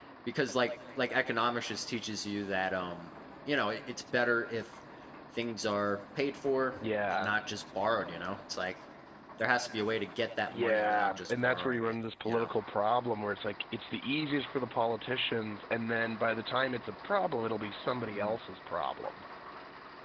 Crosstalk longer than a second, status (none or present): present